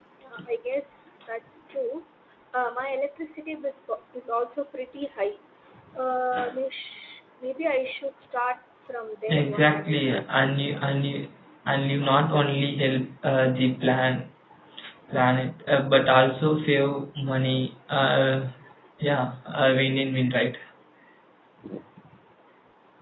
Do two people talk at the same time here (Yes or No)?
Yes